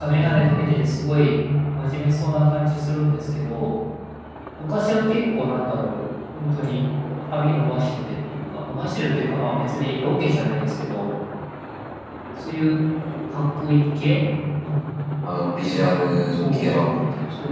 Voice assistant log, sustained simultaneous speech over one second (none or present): present